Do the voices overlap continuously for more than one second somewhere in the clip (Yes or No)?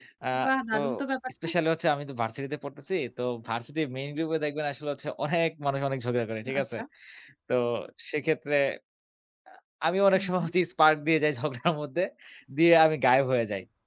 No